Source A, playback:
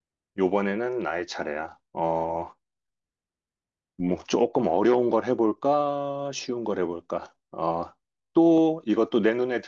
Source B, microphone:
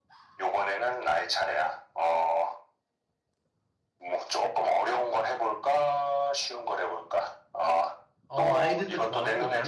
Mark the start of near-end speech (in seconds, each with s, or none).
8.3 s